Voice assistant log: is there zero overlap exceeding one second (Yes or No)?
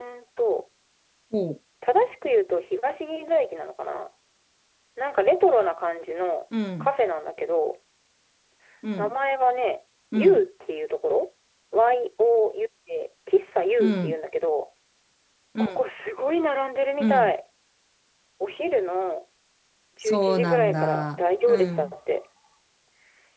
No